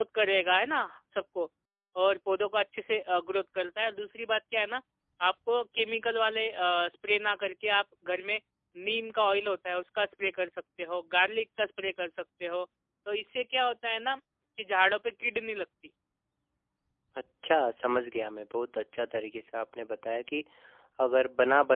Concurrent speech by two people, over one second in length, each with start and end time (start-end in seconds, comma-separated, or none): none